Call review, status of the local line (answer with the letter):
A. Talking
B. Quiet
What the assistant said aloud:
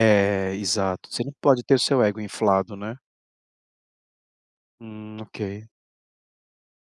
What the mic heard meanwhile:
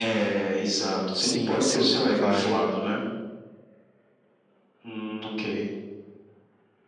A